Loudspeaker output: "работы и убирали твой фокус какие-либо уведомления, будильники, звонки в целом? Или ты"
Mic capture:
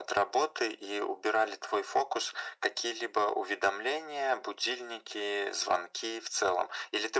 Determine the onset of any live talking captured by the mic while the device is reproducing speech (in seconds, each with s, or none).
none